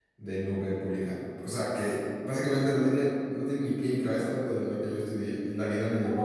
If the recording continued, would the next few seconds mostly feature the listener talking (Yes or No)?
Yes